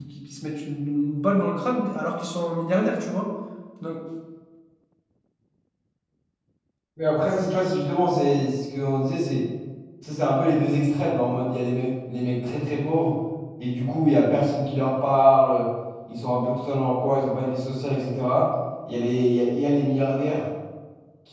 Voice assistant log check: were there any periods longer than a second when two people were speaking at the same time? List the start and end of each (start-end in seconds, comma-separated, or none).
none